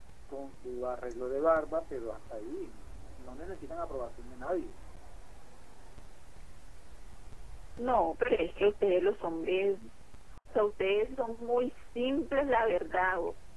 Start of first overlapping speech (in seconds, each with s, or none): none